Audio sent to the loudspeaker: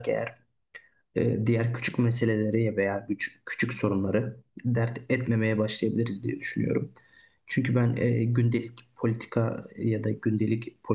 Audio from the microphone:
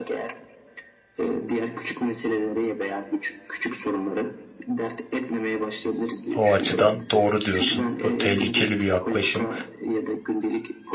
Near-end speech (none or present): present